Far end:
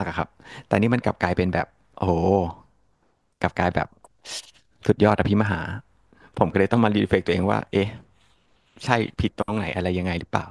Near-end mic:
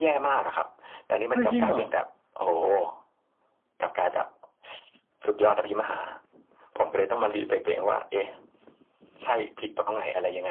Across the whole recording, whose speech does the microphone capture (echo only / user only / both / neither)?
both